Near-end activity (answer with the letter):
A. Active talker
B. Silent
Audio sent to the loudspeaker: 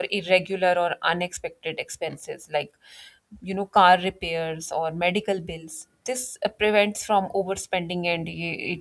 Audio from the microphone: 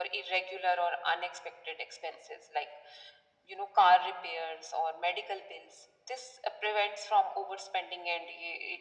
B